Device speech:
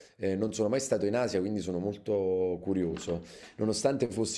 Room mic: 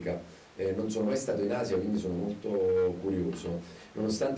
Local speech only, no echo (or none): none